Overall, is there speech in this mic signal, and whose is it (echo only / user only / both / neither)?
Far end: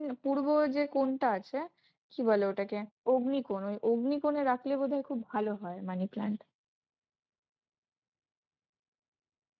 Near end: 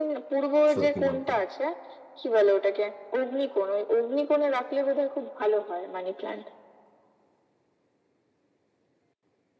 both